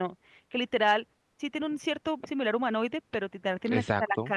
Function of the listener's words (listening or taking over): listening